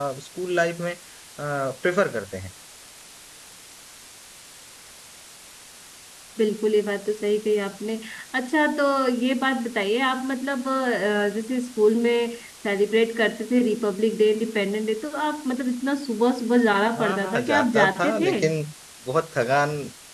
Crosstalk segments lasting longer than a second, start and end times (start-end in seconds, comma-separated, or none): 17.0-18.3